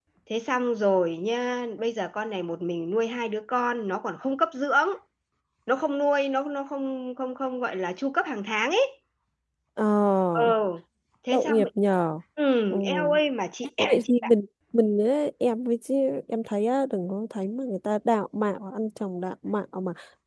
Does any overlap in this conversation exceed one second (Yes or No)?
No